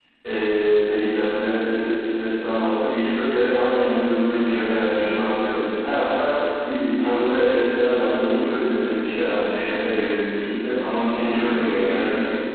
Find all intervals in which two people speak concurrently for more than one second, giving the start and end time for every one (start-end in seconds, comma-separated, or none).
10.8-12.0